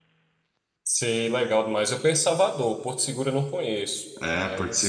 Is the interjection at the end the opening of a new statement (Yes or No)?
Yes